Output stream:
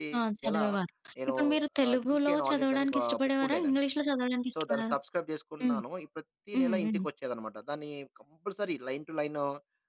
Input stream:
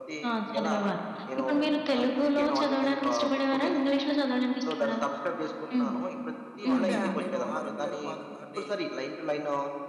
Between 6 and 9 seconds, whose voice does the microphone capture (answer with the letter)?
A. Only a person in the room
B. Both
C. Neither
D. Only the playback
B